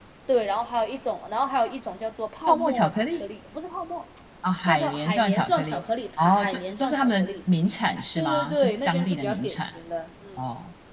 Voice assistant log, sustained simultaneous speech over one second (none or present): present